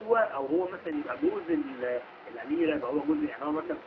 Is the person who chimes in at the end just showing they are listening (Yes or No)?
No